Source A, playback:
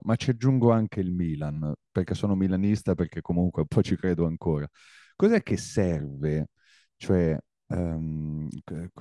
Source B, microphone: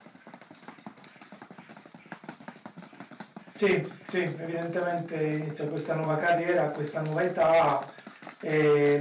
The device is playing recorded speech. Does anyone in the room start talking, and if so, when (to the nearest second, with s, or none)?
3 s